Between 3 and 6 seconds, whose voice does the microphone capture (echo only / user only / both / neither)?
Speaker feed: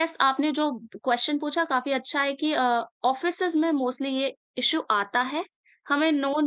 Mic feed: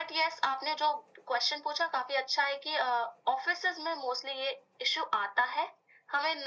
echo only